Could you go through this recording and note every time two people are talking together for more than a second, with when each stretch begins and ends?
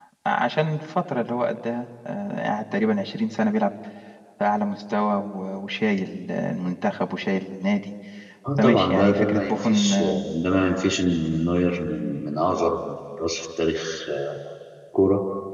8.6-9.9

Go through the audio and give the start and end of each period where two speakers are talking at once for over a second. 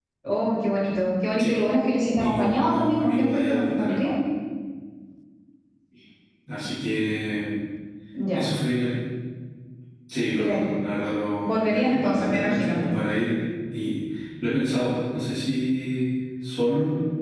2.2-4.0, 11.4-12.8

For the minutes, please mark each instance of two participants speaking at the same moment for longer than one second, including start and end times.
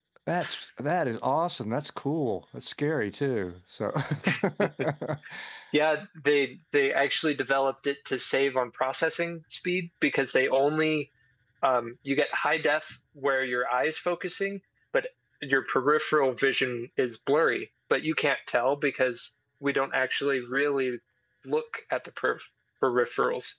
none

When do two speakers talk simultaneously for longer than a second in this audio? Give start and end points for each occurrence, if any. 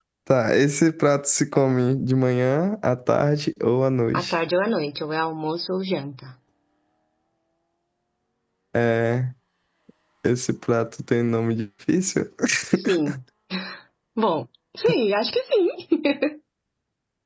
none

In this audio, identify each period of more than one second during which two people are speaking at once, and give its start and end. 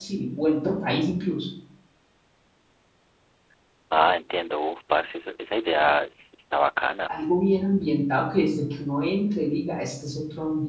none

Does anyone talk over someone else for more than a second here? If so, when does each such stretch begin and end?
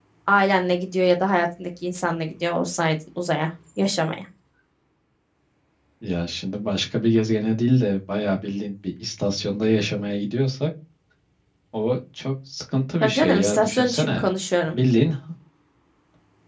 13.0-14.2

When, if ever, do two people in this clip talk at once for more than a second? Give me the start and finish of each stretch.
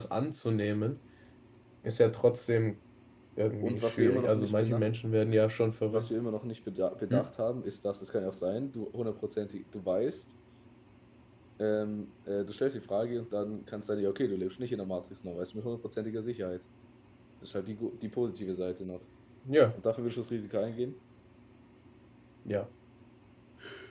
3.6-4.9

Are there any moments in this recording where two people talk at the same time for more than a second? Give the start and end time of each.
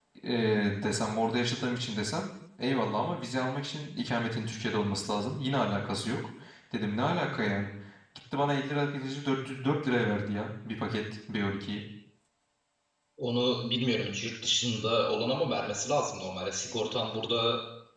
none

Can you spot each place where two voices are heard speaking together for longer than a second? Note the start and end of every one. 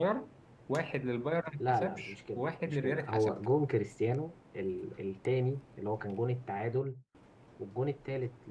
1.6-3.4

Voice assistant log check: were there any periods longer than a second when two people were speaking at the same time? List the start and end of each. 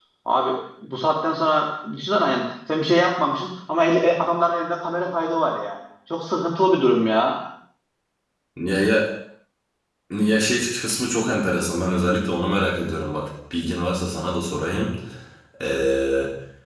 none

